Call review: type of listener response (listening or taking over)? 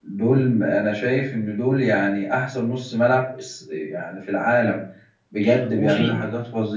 listening